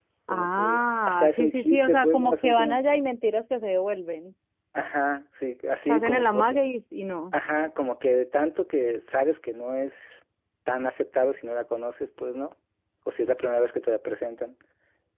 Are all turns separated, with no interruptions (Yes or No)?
No